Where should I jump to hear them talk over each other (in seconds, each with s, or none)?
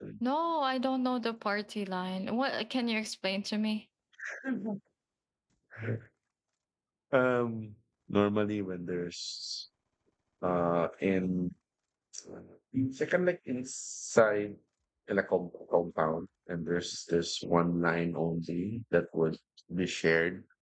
none